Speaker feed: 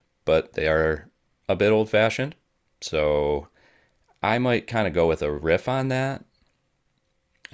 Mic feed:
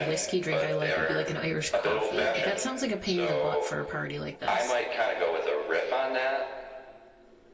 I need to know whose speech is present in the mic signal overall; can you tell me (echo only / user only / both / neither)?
both